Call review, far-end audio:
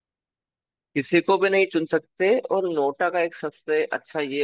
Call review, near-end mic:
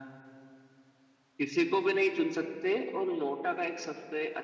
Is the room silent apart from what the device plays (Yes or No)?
Yes